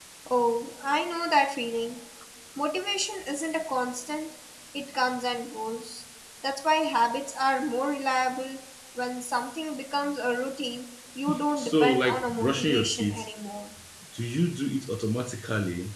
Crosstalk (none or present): present